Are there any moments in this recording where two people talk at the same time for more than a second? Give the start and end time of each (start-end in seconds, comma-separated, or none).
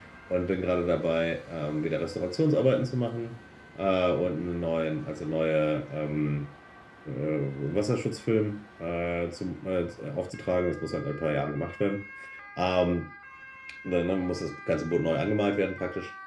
none